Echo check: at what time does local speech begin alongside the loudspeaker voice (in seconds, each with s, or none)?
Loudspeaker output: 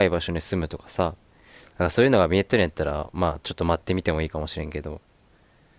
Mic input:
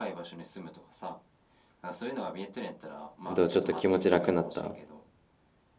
3.3 s